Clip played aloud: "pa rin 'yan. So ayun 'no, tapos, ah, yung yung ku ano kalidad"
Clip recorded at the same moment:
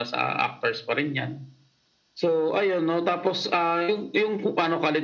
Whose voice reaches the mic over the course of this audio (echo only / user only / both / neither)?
echo only